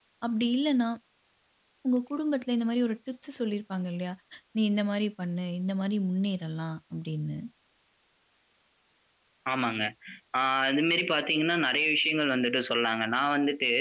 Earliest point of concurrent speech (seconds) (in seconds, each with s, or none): none